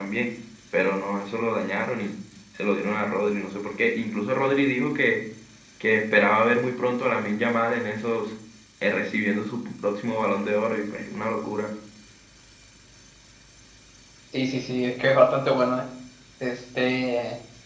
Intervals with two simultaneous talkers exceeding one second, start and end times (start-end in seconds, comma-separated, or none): none